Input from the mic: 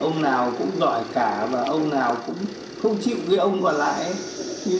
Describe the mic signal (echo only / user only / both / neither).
echo only